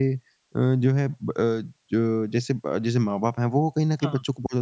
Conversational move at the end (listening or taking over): listening